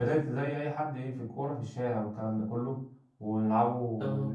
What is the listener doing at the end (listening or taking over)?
listening